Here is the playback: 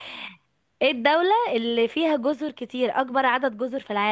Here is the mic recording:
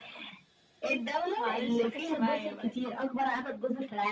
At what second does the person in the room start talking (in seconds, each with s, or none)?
1.4 s